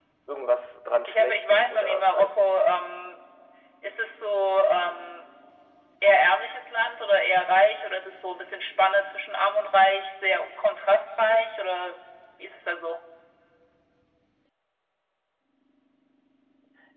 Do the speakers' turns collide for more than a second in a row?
Yes, from 1.1 s

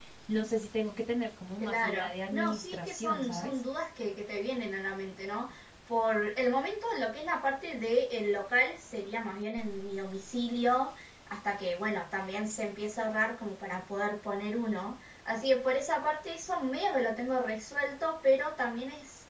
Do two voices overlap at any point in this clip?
Yes, from 1.6 s

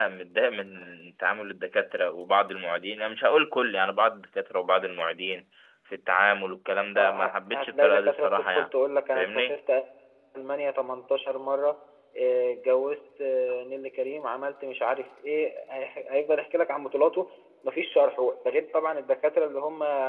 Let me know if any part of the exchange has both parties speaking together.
Yes, from 7.0 s

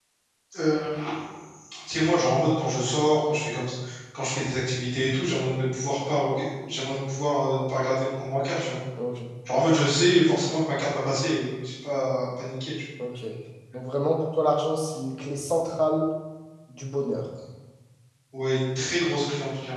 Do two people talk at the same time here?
No

